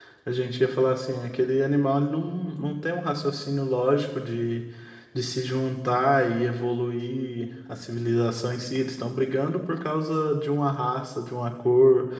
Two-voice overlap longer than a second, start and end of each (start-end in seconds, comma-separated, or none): none